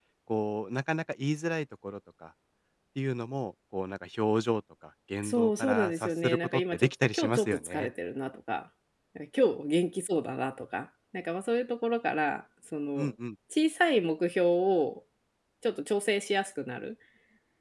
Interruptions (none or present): present